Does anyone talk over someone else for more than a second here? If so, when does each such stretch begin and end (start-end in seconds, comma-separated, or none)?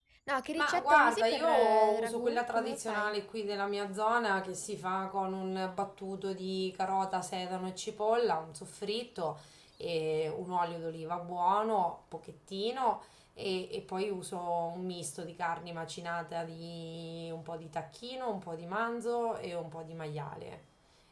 0.6-3.2